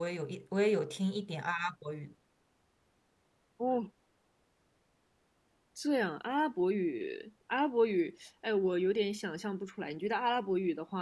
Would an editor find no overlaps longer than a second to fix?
Yes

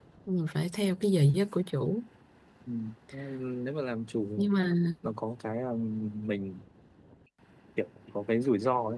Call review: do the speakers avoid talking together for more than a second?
Yes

